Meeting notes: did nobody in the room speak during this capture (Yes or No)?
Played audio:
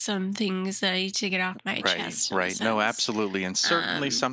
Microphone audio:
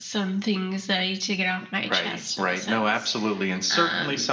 Yes